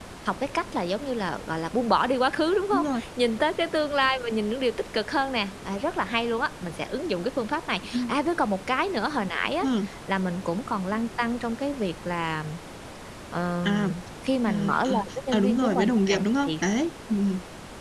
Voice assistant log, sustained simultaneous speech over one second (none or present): present